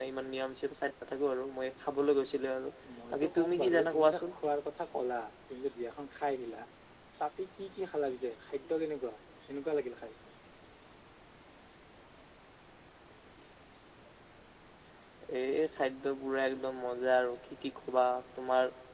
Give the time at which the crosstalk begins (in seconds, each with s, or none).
3.1 s